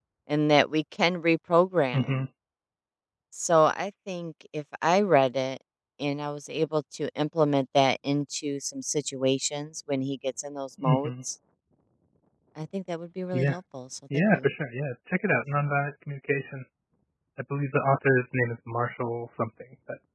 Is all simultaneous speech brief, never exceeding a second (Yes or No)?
Yes